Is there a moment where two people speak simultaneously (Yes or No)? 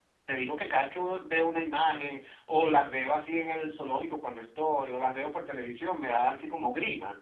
No